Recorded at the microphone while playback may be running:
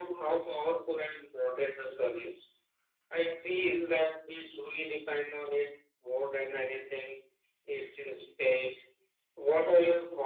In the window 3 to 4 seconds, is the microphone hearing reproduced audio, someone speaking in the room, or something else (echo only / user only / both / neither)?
echo only